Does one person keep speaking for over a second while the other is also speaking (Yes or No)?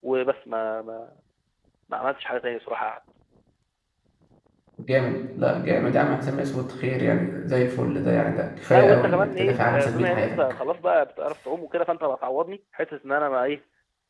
Yes